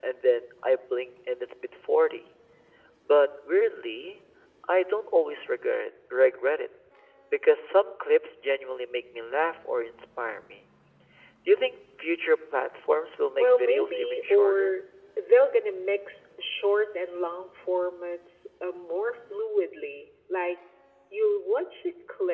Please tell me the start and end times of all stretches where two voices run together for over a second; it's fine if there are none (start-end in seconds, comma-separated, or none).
13.4-14.8